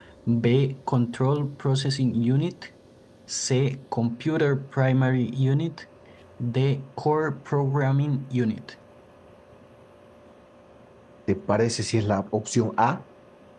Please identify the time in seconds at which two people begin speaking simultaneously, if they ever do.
none

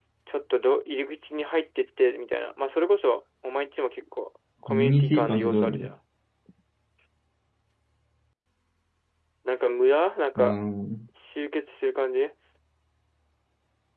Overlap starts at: 4.7 s

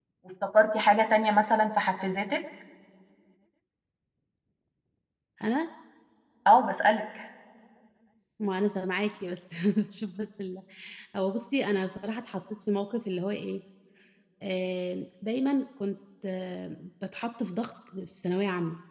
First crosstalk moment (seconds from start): none

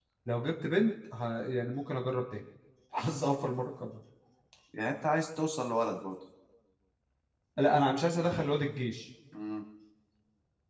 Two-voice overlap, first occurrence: none

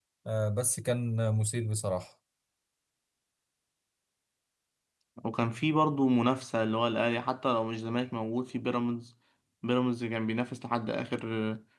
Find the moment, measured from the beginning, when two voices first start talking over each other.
none

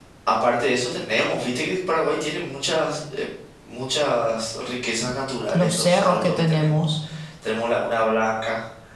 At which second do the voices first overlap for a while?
5.5 s

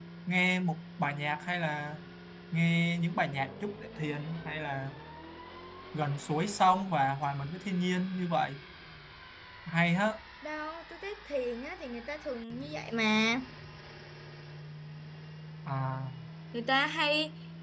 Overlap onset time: none

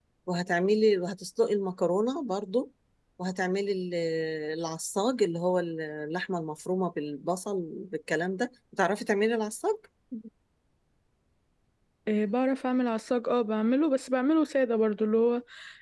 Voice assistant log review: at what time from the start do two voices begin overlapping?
none

